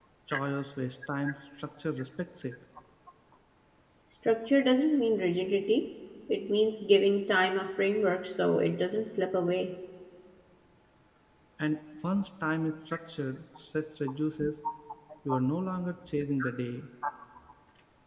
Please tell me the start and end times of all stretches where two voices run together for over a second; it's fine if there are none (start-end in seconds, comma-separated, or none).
none